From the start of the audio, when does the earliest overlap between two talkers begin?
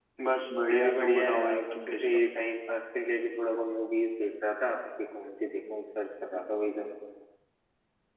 0.6 s

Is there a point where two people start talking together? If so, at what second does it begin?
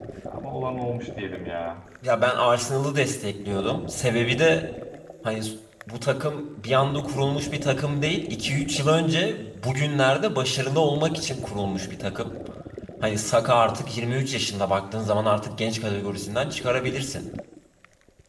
none

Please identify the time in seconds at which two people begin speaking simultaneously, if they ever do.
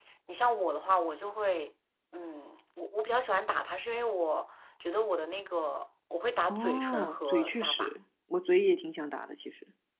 6.5 s

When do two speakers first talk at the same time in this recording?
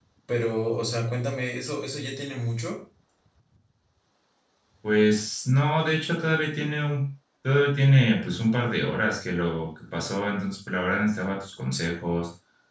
none

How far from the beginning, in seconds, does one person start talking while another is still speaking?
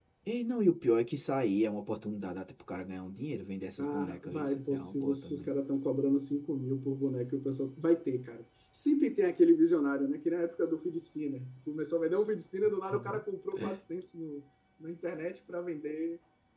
3.8 s

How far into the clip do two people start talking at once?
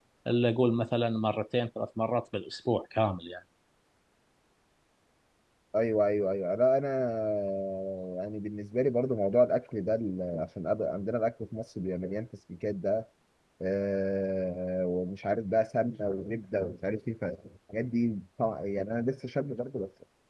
none

